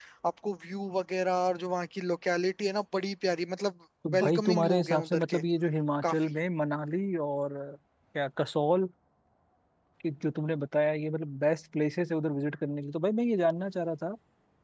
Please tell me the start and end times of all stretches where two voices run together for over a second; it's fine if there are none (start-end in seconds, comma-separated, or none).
4.1-5.4